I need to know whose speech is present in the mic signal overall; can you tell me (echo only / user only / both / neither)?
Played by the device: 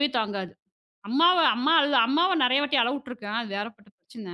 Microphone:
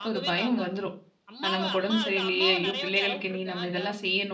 both